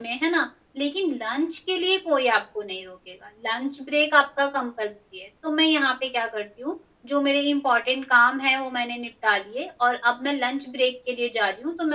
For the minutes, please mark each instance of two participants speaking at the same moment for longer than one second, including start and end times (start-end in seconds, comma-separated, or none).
none